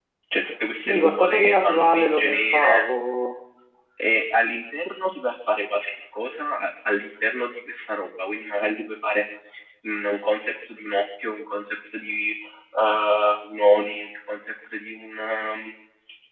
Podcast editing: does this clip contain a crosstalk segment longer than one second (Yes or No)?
Yes